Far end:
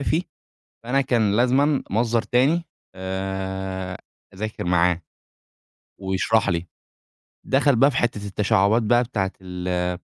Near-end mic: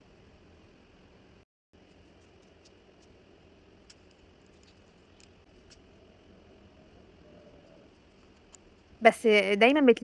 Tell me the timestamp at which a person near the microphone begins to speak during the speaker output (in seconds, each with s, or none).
9.0 s